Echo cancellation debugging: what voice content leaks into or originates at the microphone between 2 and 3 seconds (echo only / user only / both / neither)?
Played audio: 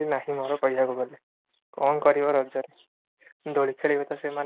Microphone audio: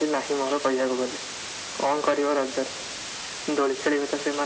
echo only